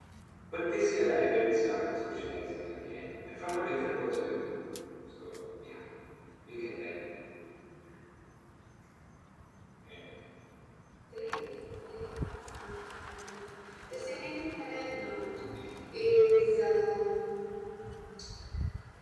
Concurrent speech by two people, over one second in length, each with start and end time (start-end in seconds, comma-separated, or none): none